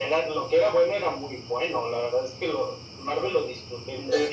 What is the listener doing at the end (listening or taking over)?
taking over